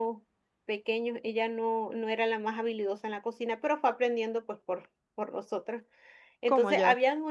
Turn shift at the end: No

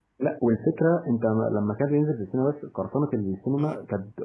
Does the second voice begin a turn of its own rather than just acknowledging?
No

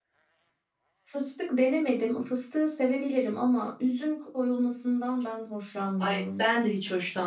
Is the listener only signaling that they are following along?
No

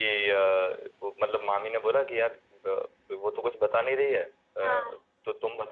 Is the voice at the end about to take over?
No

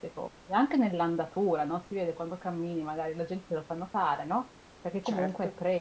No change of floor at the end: Yes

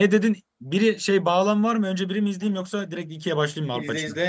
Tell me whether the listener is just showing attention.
No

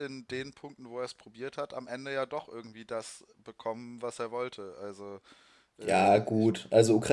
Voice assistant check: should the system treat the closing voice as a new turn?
Yes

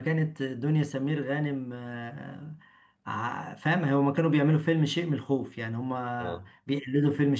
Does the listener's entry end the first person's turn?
No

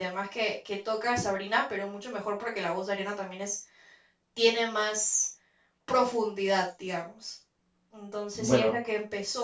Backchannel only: Yes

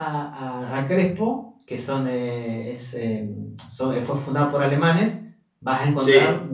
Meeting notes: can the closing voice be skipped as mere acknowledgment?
Yes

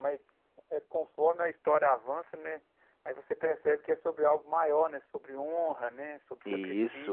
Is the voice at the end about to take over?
No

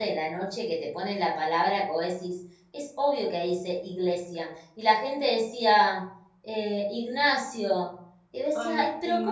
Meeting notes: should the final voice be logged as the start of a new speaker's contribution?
No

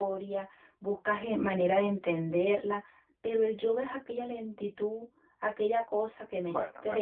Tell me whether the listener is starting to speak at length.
Yes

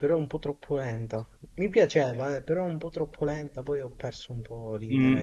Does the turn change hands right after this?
Yes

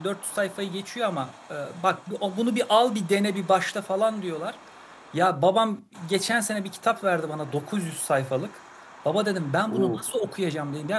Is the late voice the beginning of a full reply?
No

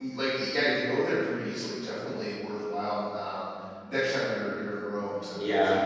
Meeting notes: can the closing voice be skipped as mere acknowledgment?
No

